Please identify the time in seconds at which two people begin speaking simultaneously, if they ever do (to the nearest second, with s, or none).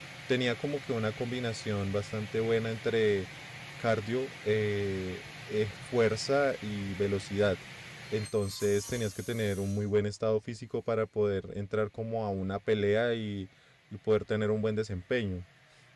none